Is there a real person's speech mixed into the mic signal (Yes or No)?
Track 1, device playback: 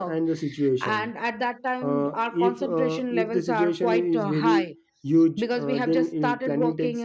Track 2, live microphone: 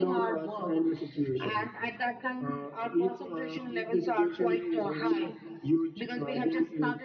No